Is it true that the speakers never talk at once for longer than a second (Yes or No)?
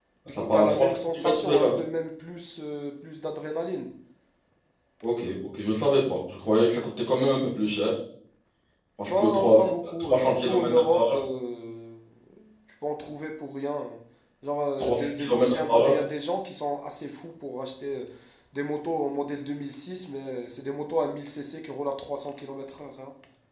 No